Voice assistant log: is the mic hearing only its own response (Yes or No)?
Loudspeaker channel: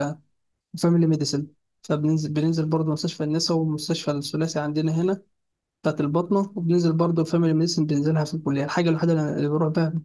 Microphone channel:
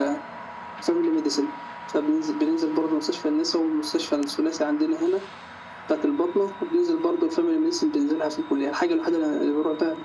Yes